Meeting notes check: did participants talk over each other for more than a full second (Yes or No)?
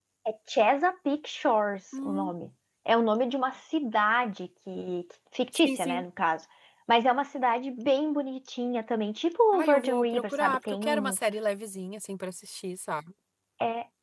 Yes